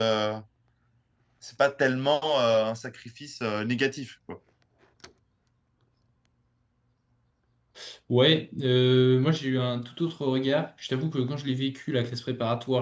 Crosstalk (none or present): none